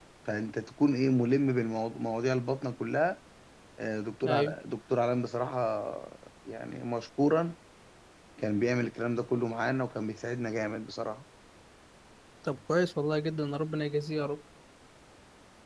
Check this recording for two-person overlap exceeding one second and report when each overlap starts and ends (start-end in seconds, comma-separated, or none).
none